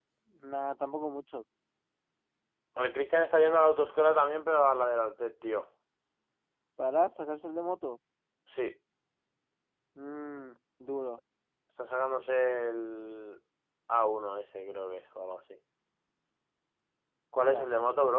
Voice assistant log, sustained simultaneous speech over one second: none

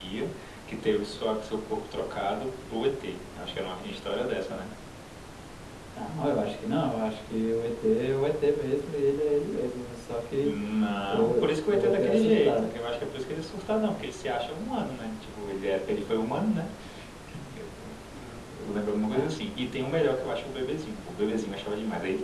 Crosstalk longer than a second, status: present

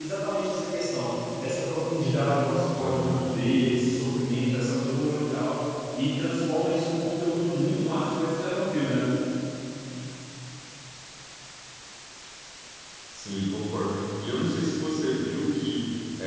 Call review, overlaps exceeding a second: none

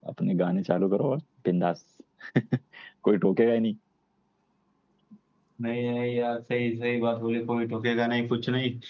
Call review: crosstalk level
none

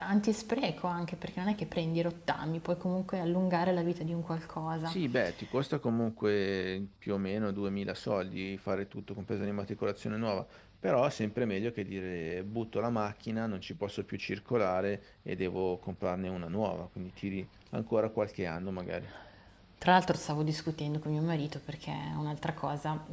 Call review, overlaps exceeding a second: none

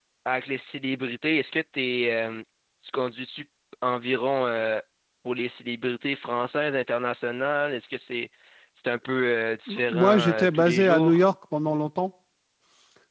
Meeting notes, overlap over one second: present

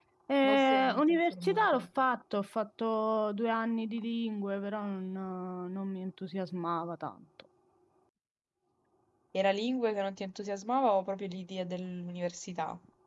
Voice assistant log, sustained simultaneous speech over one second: present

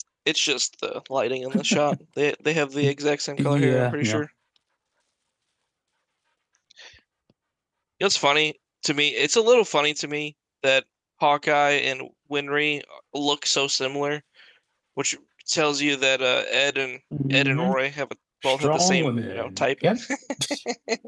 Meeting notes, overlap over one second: present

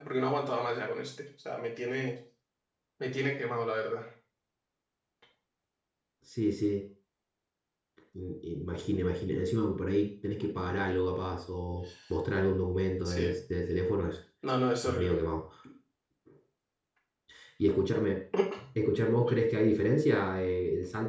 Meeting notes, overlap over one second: none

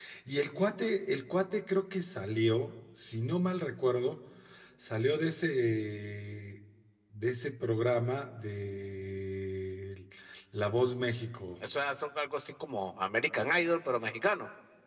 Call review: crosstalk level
none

